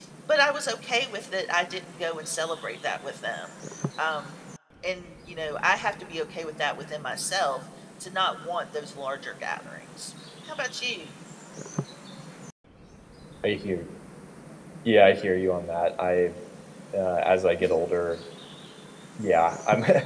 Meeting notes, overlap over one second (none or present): none